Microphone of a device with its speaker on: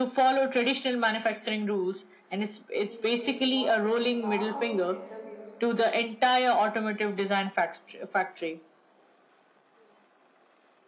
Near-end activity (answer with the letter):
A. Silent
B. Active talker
B